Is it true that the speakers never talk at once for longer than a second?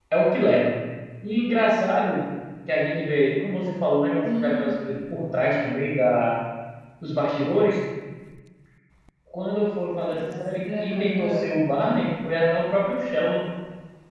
No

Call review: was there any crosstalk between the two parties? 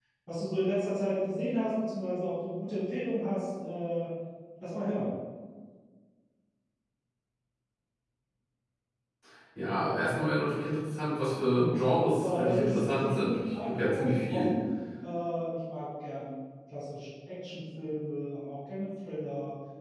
Yes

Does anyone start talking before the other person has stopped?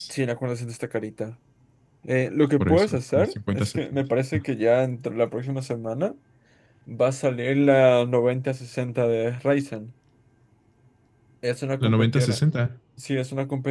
Yes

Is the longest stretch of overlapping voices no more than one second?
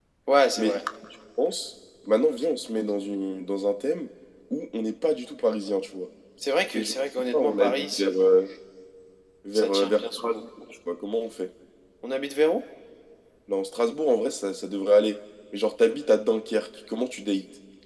No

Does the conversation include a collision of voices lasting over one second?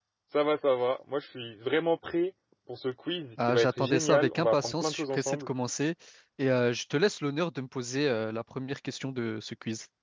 Yes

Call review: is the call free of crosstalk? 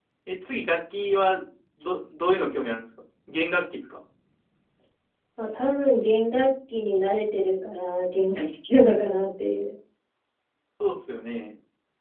Yes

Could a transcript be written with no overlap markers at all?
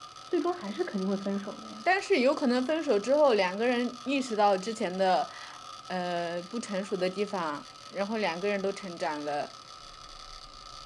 Yes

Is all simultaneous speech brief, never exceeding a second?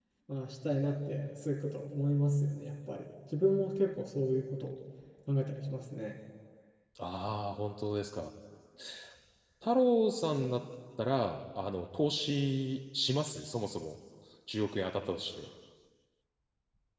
Yes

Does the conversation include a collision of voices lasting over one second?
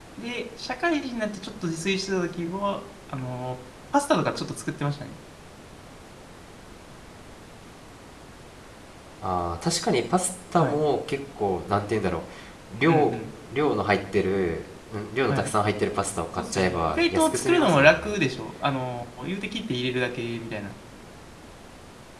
Yes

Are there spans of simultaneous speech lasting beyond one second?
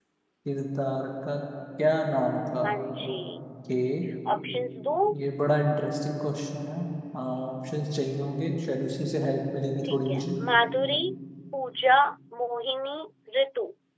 No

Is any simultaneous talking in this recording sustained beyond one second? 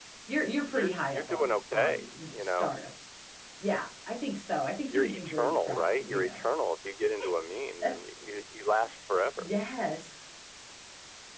Yes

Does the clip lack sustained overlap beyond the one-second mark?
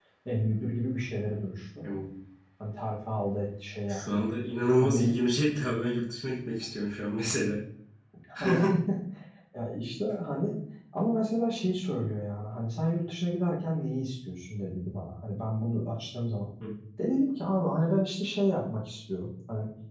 Yes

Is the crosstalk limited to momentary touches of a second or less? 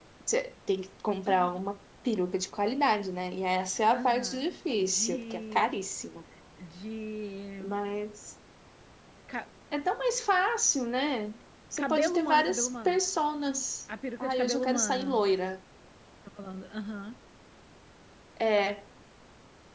No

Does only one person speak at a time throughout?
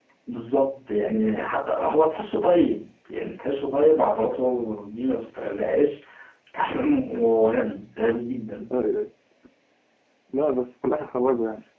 Yes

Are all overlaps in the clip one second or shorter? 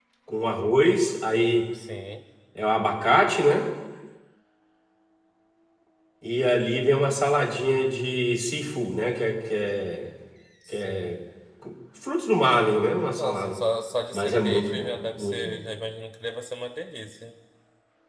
No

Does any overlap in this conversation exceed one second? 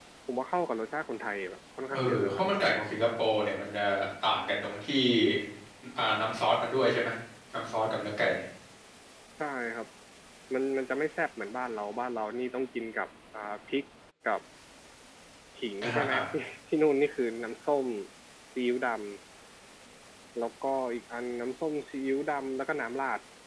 No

